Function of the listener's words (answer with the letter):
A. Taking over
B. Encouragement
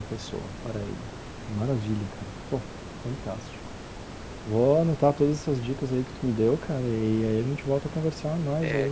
A